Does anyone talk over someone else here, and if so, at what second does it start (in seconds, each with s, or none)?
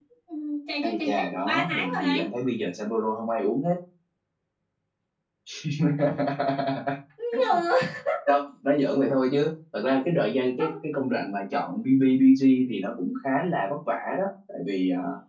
0.8 s